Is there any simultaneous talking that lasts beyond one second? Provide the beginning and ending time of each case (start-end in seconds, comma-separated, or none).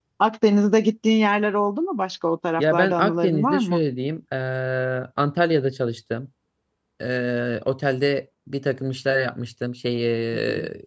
2.6-3.8